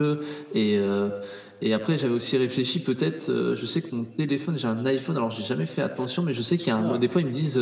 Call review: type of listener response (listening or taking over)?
listening